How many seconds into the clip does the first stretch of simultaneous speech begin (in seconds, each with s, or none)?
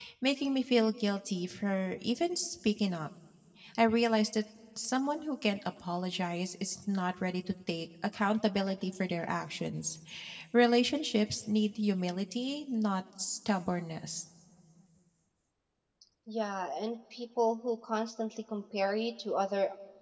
none